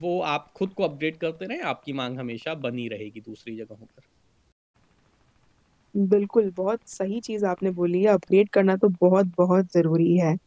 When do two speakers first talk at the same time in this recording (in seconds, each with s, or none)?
none